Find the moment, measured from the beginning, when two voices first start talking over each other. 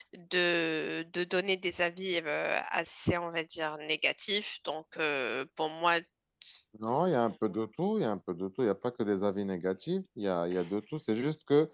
none

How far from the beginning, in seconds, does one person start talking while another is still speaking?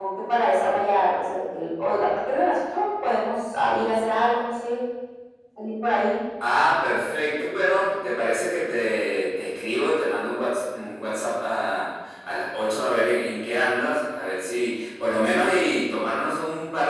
none

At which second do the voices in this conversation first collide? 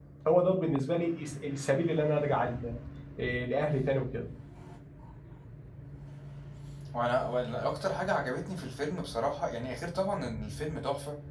none

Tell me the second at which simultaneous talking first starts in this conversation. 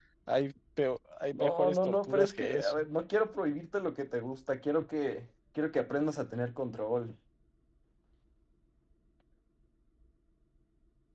1 s

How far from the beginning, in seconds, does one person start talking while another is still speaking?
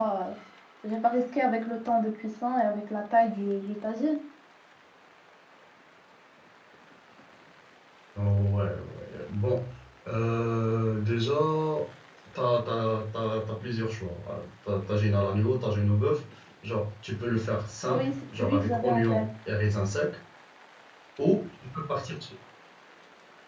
18 s

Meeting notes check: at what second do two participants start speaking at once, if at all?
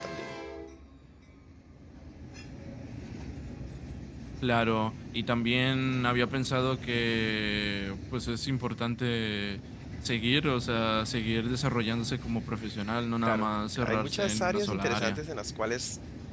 13 s

